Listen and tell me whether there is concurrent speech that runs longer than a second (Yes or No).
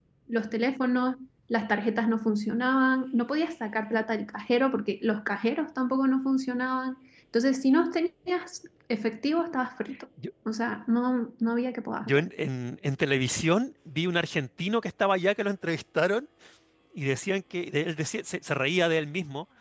No